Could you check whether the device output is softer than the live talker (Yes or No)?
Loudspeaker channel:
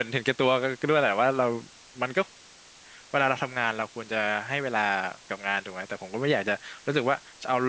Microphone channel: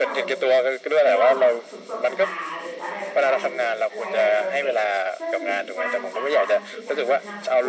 No